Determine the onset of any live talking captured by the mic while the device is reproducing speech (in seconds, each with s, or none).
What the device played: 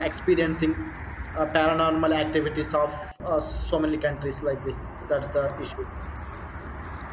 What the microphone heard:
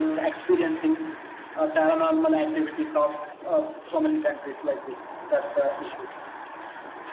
none